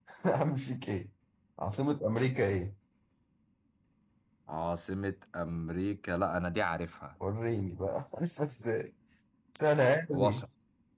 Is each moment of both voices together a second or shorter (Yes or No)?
Yes